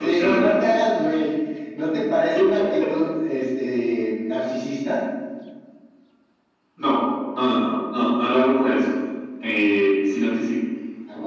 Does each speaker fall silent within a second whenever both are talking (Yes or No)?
Yes